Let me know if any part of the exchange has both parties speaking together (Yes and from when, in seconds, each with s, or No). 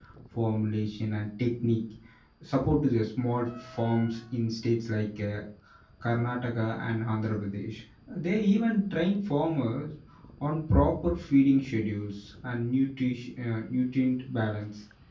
No